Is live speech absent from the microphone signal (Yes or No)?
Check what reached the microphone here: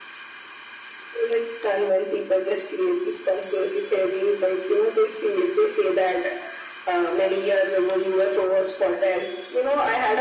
Yes